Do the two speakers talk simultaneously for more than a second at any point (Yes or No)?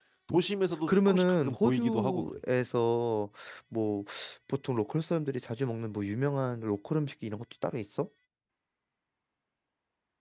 Yes